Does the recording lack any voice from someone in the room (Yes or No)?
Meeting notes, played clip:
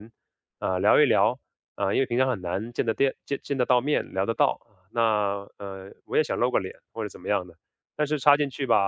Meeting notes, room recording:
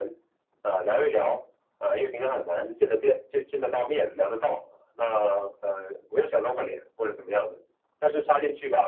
Yes